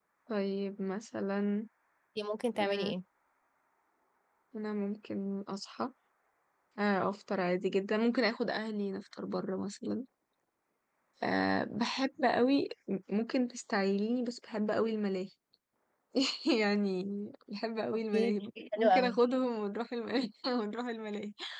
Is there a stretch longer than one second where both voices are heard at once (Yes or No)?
Yes